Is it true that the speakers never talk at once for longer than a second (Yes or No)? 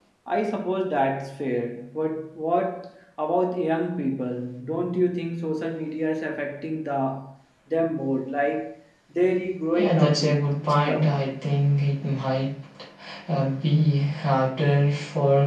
No